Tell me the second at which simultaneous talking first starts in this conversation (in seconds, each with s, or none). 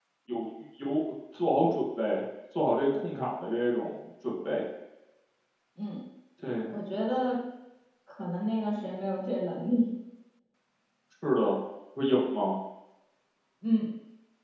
none